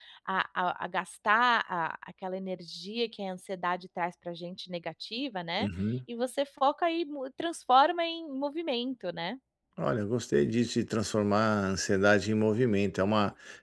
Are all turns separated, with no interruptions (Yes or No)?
Yes